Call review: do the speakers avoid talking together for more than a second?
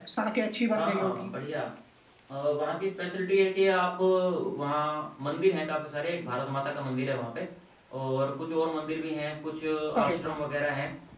Yes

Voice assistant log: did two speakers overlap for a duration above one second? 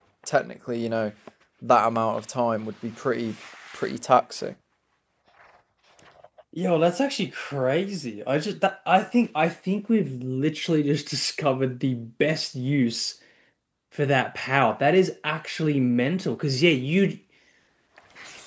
No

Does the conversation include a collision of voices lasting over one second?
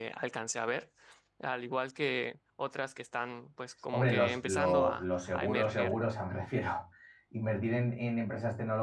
Yes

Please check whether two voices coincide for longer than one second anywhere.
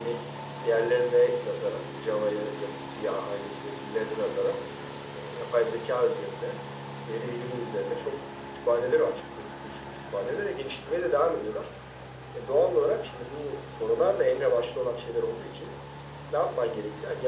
No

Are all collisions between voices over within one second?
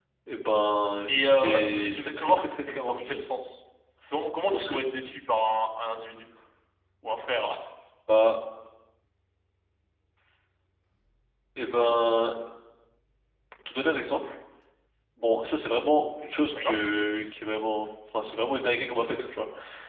No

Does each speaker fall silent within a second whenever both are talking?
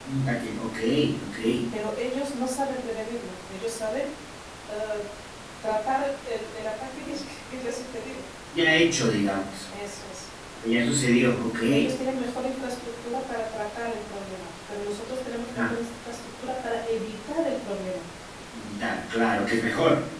Yes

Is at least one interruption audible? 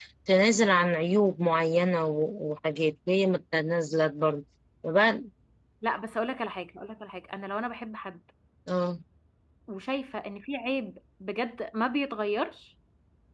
No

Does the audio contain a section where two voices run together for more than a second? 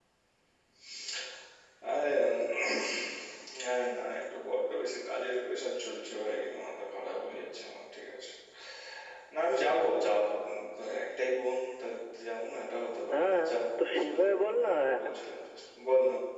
Yes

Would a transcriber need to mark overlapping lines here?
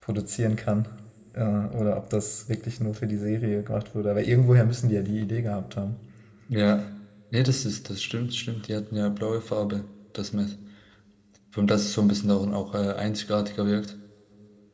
No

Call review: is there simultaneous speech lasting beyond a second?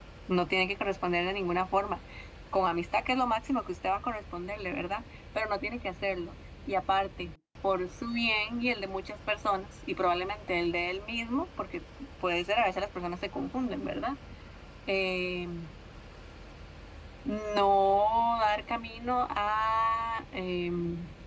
No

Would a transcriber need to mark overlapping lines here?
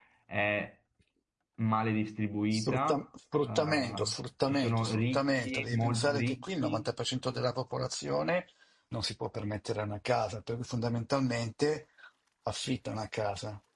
Yes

